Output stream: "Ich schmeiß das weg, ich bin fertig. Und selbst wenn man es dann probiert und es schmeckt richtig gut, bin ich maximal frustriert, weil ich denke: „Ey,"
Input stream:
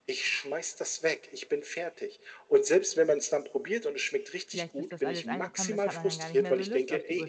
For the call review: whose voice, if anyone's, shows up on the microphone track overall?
both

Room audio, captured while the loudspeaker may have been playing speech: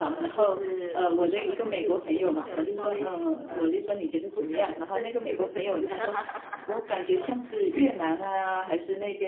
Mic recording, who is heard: both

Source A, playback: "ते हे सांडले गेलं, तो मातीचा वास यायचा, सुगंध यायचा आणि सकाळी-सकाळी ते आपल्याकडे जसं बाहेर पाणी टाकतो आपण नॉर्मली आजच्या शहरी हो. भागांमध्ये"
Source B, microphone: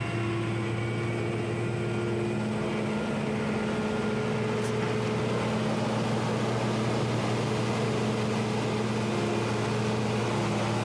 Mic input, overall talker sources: neither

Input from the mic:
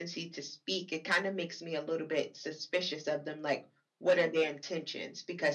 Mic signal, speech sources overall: echo only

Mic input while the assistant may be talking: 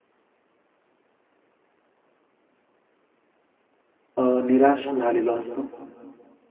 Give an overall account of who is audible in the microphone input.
user only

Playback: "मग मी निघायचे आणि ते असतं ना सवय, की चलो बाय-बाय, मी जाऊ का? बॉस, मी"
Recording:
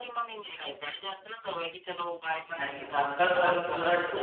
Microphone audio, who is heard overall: both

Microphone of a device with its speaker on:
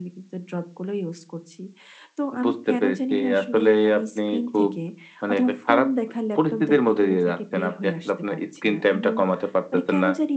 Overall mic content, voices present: echo only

